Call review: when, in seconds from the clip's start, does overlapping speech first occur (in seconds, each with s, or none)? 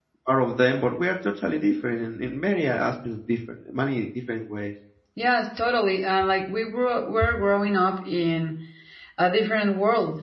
none